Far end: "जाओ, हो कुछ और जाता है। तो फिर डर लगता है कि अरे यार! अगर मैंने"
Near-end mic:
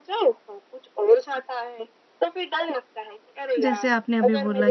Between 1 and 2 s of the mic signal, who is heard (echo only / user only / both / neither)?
echo only